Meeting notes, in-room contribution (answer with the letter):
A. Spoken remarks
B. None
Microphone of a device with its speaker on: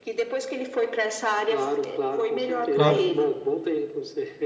A